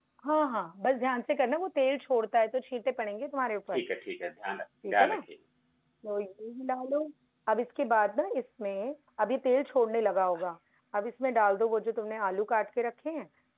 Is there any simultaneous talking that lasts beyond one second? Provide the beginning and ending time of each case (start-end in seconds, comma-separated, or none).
none